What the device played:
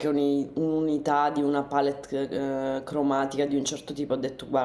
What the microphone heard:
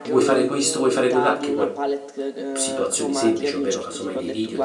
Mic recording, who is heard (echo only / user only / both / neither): both